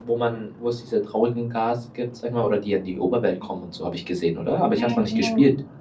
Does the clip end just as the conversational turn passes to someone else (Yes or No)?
Yes